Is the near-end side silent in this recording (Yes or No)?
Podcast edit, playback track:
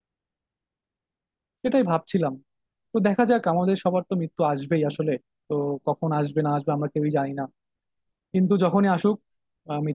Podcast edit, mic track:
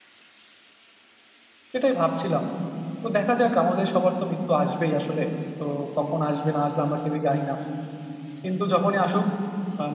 Yes